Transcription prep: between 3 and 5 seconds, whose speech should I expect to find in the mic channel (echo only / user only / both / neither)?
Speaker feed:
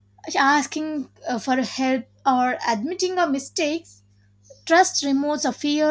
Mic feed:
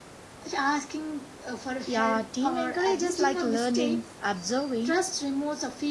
both